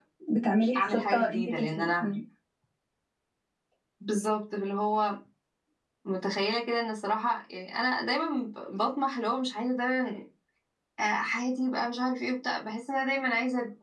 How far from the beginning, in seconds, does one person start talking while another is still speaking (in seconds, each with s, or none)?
0.8 s